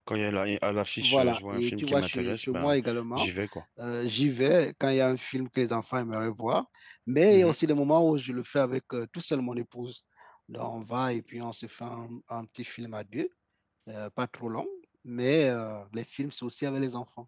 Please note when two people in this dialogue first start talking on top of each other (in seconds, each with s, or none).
1.0 s